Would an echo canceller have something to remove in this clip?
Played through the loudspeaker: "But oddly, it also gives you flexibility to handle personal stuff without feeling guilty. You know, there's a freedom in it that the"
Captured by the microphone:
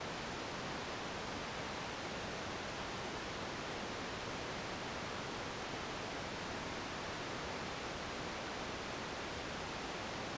No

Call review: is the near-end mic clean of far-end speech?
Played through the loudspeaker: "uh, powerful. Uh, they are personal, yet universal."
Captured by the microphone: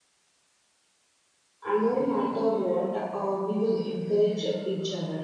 Yes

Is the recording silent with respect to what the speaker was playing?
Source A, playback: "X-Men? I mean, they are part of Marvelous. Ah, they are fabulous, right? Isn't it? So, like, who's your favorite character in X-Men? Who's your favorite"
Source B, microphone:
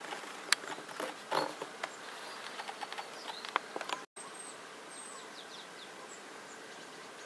Yes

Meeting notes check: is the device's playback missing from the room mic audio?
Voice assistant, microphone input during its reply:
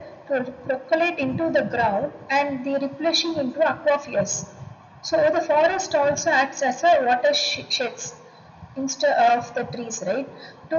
No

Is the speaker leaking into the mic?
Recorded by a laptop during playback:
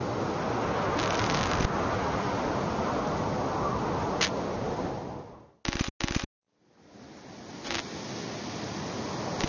No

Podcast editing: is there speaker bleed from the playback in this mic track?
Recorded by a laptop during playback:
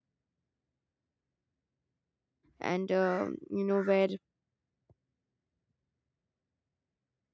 No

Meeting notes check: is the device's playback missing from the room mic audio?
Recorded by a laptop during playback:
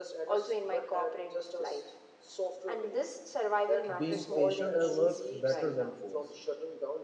No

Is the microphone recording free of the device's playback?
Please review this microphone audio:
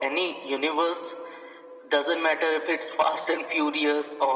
No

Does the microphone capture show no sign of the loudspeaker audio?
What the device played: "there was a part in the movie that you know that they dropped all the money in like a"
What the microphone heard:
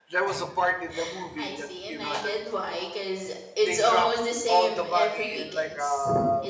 No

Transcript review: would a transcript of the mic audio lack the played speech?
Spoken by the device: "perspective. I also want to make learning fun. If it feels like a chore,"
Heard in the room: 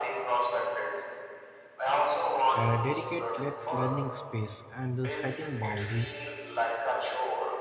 No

